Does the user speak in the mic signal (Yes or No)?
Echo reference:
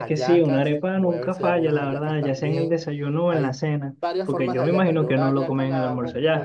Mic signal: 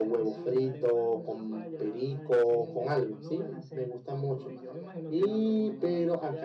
Yes